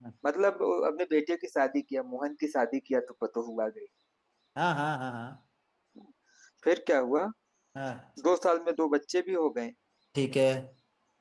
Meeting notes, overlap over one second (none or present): none